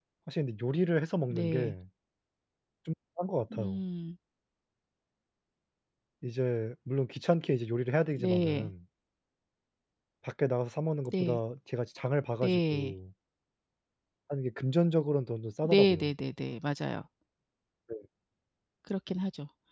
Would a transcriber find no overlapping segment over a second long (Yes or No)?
Yes